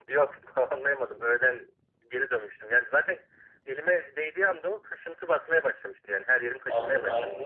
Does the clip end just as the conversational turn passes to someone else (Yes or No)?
Yes